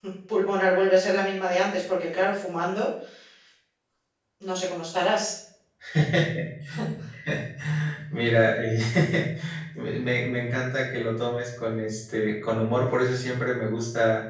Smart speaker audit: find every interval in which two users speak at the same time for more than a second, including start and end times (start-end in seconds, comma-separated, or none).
none